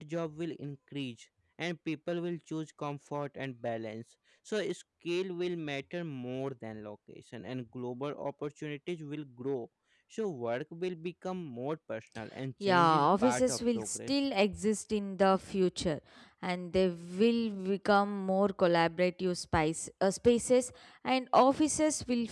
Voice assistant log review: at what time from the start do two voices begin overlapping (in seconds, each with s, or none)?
12.6 s